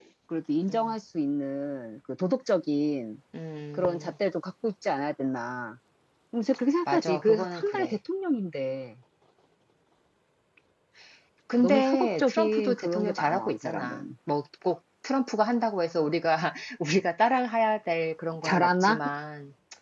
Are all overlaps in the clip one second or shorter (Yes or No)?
No